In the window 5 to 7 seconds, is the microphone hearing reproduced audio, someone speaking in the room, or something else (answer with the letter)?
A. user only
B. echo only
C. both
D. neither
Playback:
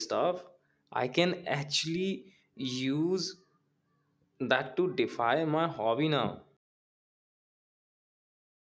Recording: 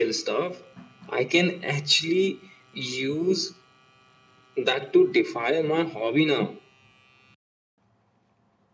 B